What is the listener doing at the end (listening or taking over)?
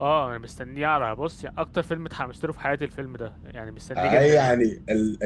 taking over